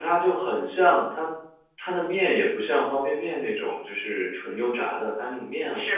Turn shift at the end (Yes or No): No